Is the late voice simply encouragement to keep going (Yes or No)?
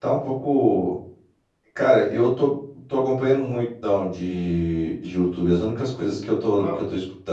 Yes